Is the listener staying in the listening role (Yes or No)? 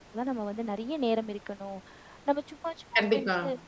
Yes